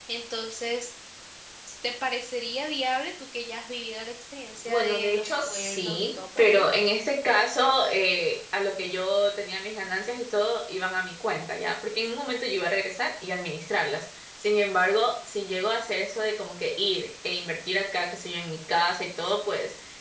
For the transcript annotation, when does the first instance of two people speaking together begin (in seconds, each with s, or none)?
4.7 s